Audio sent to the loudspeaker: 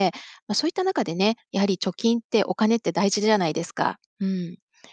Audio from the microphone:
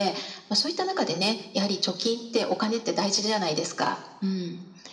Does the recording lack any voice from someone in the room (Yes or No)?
Yes